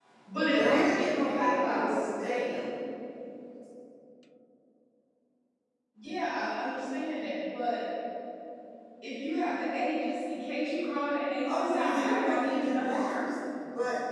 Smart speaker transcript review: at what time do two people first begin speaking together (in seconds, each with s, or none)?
0.5 s